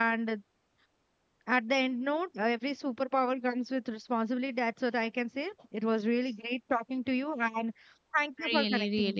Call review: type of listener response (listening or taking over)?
taking over